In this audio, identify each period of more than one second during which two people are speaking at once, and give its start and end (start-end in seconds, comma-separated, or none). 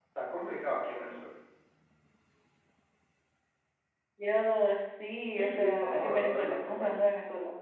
5.2-7.0